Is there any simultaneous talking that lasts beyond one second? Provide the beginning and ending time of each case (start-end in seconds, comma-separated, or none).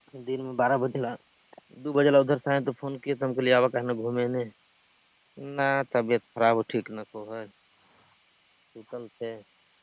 none